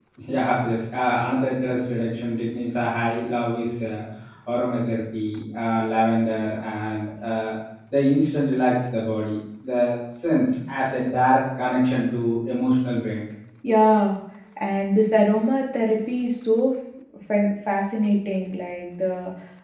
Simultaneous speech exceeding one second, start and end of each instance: none

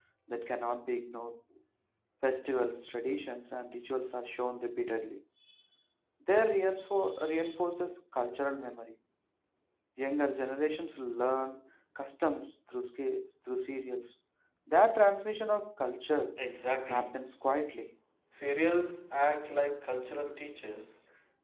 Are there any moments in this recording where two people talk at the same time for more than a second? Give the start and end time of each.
none

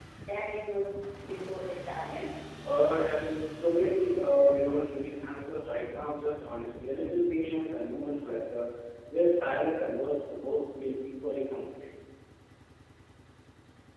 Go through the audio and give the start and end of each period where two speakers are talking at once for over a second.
none

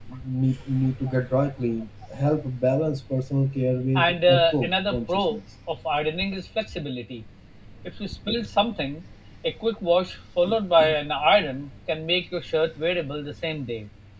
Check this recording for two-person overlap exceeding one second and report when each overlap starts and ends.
4.0-5.4

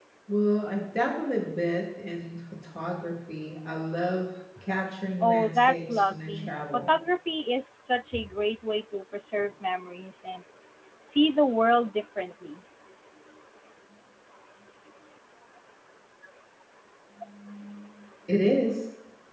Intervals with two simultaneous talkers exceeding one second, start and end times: 5.2-6.9

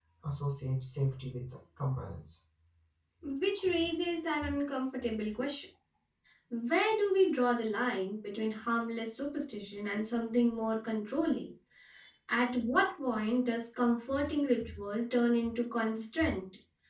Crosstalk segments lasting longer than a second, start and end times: none

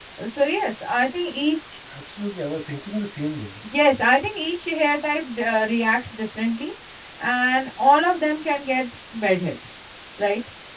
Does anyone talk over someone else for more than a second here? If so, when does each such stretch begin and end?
none

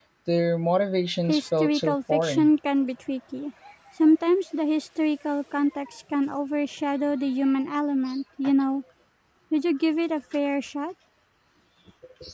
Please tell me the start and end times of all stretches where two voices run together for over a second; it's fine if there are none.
1.3-2.5

